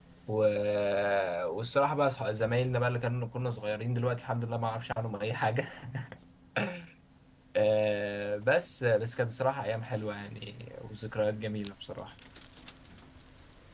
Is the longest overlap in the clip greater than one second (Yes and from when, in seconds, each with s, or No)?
No